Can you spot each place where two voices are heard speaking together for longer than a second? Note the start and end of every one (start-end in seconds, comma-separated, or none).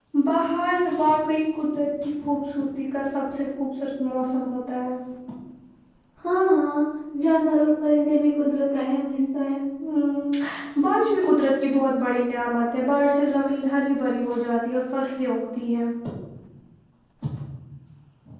none